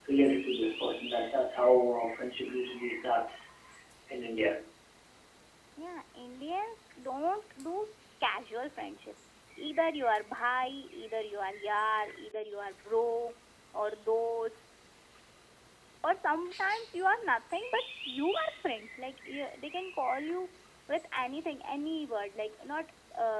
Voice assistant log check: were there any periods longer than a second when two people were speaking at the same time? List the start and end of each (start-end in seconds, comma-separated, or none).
none